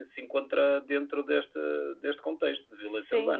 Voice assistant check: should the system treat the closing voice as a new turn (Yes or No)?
Yes